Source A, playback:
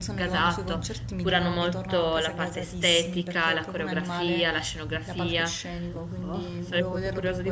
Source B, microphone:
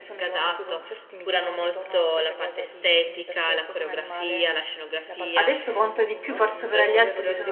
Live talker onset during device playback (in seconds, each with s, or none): 5.3 s